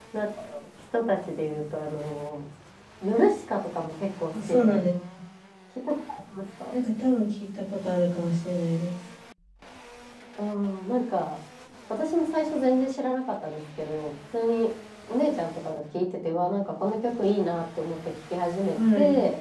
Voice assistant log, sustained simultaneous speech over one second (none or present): none